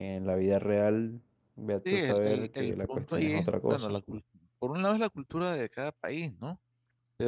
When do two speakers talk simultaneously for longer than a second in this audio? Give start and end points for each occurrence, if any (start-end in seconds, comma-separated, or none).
1.9-4.0